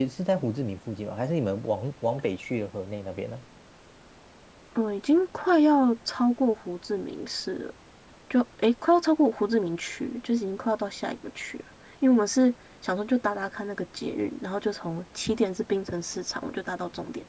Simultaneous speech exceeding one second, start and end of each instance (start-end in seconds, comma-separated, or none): none